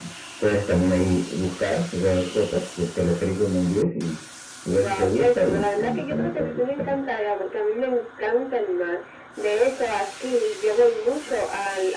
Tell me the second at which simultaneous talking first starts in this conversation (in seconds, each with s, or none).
4.8 s